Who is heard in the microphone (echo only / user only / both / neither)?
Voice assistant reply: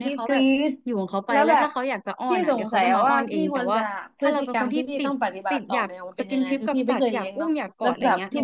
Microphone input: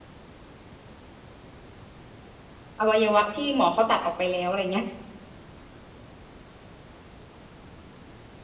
user only